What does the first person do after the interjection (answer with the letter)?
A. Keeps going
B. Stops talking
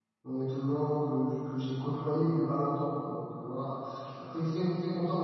A